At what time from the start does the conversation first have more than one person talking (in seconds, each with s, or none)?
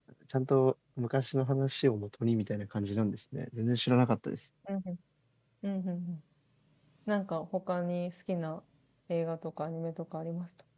none